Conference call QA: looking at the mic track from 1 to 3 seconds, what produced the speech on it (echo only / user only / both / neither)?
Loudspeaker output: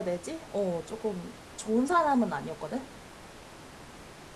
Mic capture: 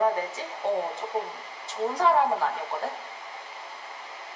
echo only